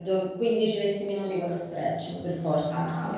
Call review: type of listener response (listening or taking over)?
taking over